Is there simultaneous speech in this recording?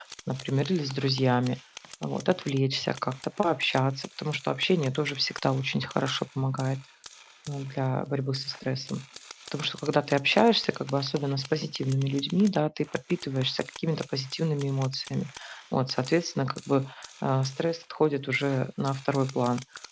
No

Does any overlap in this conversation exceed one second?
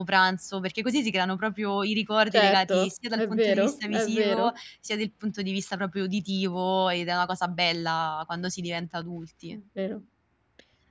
Yes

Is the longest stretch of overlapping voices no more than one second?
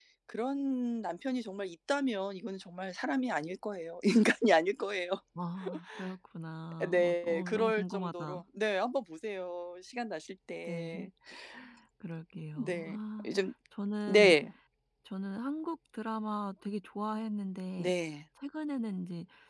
No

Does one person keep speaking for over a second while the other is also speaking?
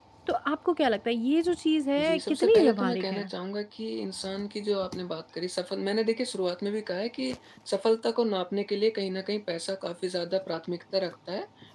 Yes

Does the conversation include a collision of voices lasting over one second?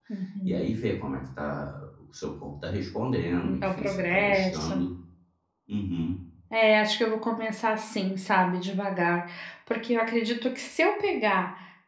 Yes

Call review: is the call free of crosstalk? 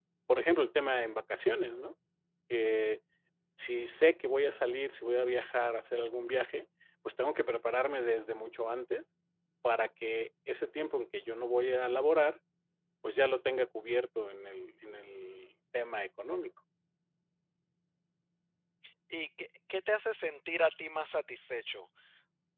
Yes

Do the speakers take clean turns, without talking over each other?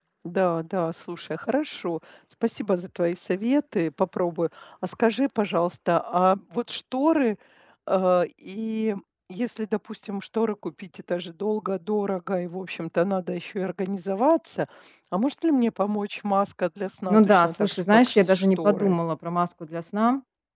No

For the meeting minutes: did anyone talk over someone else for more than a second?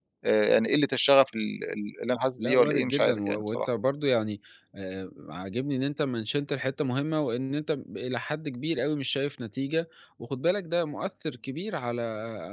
Yes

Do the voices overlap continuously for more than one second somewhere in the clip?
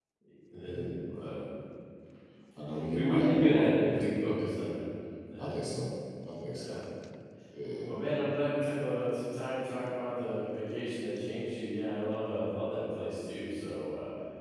Yes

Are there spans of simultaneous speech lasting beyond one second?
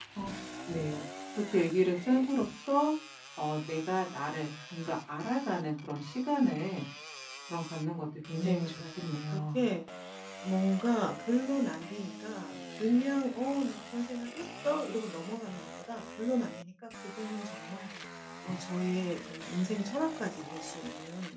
Yes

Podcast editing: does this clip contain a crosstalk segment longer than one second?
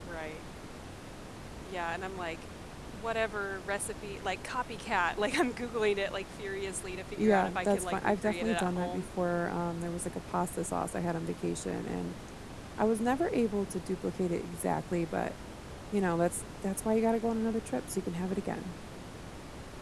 Yes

